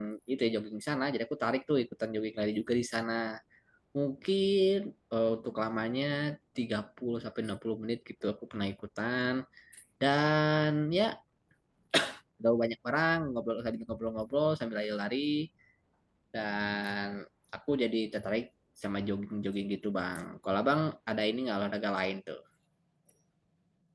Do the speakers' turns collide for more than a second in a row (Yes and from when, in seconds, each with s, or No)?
No